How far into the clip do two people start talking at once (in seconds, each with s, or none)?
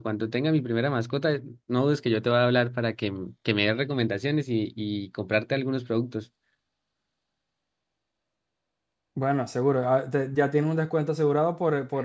none